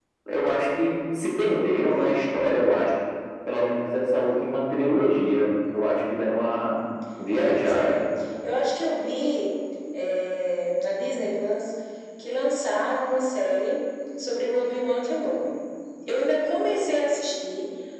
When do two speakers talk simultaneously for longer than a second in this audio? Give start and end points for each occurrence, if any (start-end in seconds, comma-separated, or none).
none